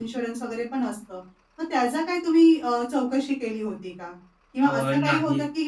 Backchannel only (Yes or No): Yes